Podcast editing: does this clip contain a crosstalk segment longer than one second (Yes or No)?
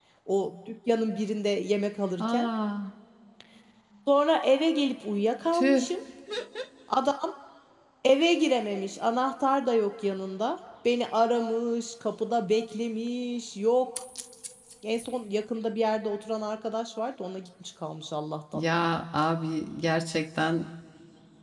No